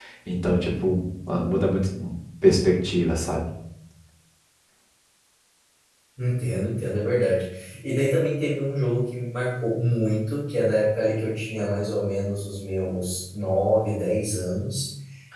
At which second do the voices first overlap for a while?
none

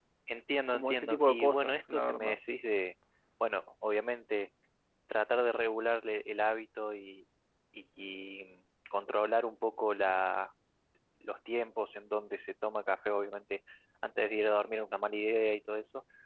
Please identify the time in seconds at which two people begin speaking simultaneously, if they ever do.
0.7 s

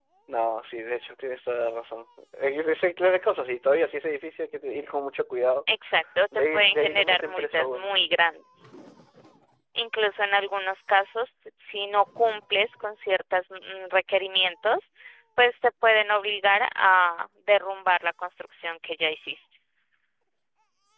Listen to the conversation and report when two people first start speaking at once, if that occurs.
6.5 s

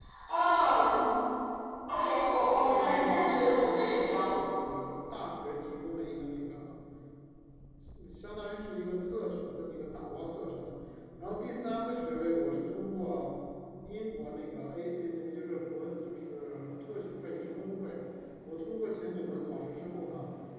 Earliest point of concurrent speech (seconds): 2.6 s

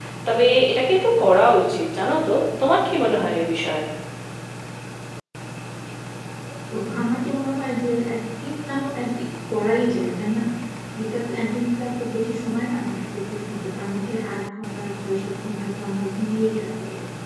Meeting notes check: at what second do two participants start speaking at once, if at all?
none

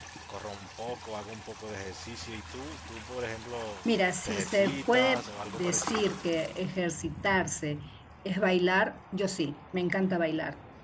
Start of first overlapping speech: 4.2 s

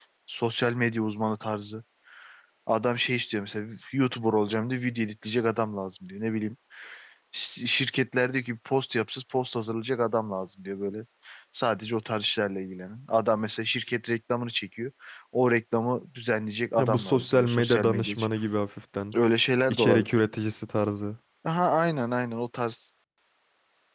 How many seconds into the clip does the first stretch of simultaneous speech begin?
16.8 s

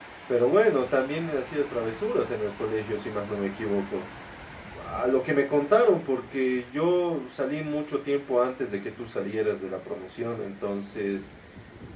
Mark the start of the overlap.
none

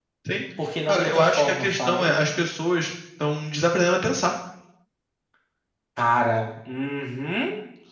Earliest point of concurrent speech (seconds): 0.9 s

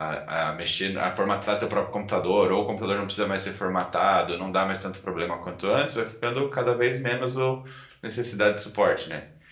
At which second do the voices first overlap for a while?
none

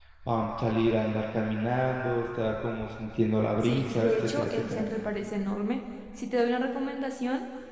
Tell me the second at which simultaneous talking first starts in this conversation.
3.6 s

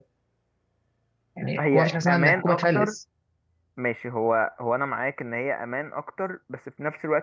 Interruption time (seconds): 1.6 s

